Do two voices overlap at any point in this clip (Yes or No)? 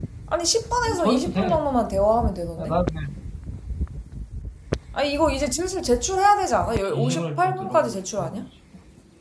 Yes